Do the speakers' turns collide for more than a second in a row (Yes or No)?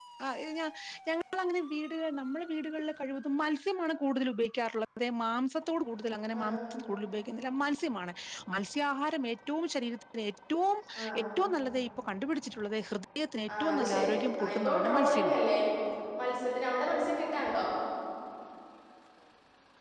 Yes